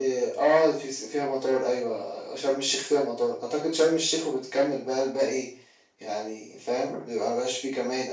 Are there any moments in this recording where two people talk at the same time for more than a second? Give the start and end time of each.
none

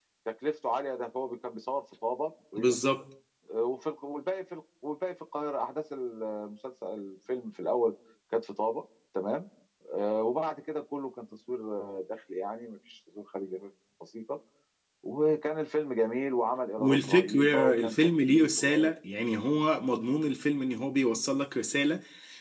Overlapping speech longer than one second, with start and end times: 16.8-18.9

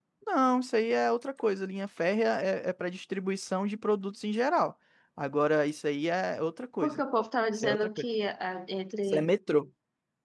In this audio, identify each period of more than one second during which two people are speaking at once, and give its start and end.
none

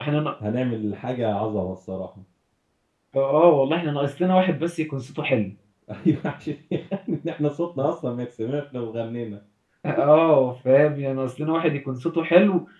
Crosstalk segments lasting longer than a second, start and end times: none

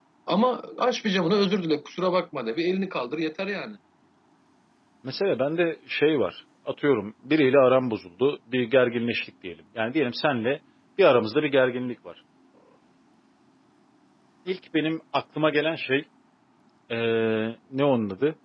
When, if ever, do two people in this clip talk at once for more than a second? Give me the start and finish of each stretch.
none

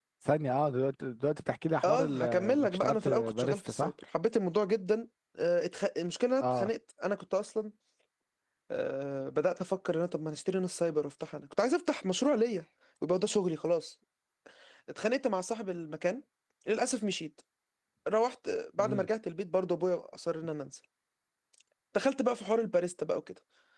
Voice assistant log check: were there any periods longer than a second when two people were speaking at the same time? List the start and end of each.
1.8-3.9

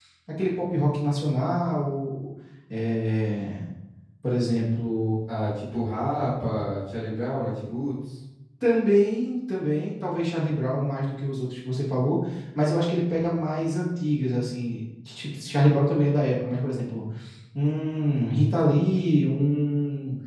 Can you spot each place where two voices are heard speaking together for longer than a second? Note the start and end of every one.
none

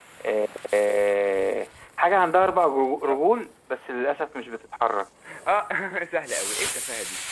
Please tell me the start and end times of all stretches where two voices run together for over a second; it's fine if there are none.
none

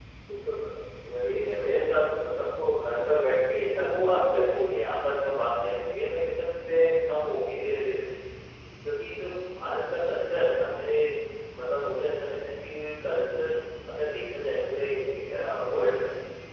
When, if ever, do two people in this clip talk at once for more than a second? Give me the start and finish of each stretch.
3.5-4.8

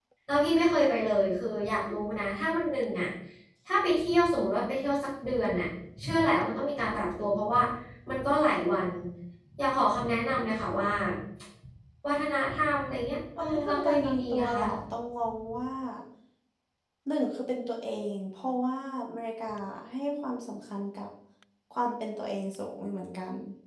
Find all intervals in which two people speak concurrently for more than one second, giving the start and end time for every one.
13.4-14.6

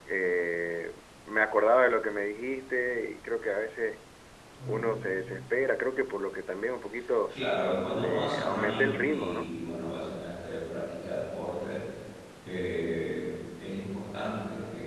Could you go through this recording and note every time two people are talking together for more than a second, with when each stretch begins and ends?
7.9-9.5

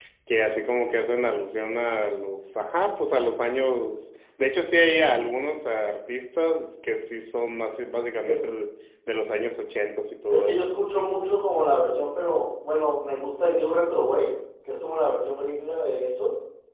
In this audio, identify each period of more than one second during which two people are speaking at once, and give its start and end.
none

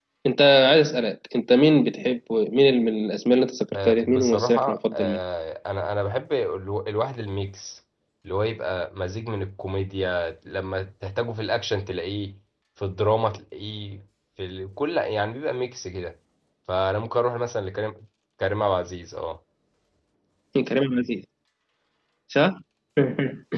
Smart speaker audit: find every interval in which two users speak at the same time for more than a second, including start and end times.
3.8-5.2

